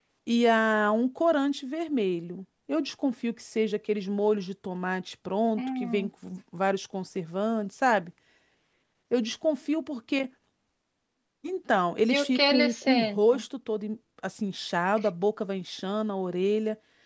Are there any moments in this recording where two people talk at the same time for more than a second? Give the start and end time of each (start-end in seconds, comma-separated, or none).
12.1-13.4